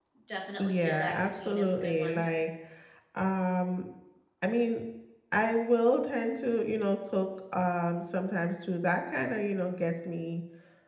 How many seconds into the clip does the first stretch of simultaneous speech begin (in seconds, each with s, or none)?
0.6 s